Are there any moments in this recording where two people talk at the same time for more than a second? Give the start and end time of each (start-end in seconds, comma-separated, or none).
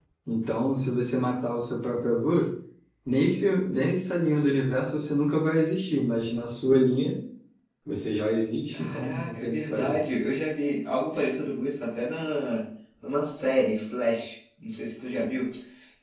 8.7-10.0